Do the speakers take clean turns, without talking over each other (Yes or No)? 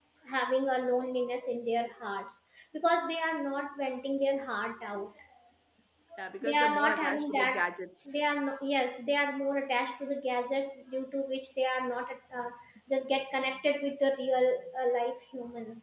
No